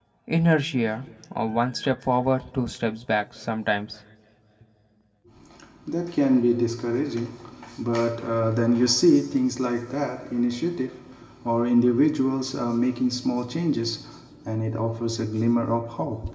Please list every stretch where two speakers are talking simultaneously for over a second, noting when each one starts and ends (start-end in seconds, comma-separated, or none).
none